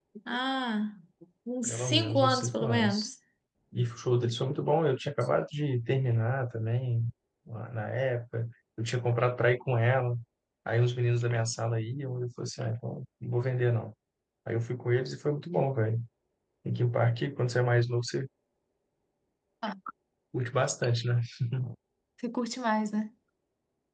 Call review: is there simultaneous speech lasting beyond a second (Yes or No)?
Yes